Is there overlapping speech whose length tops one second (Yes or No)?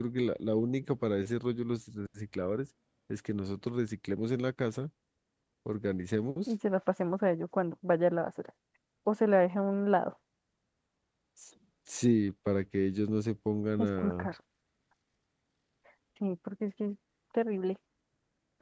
No